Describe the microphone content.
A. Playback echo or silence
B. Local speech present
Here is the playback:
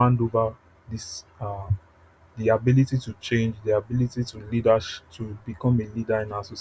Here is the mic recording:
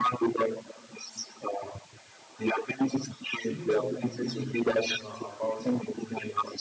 B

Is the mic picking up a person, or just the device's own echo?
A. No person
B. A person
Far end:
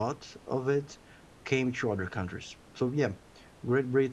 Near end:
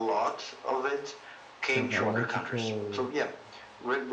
B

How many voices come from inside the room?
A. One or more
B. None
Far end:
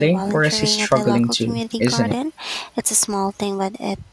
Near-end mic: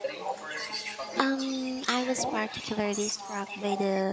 A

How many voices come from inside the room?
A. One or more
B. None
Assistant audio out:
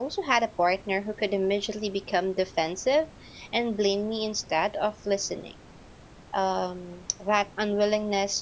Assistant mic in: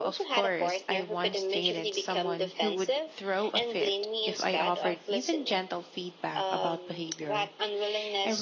A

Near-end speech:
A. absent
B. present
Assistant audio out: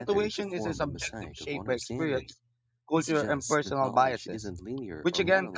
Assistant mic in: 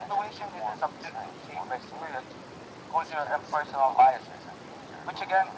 A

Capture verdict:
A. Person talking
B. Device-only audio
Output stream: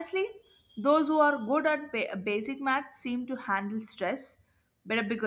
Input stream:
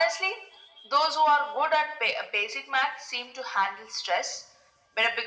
B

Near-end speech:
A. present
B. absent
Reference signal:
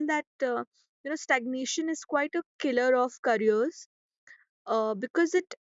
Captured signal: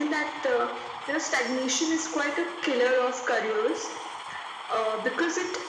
B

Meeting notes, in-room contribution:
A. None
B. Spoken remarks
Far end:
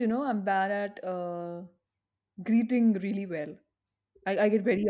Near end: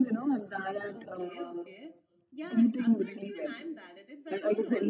B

